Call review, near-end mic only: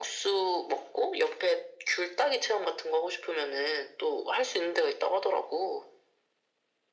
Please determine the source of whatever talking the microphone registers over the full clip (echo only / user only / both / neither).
echo only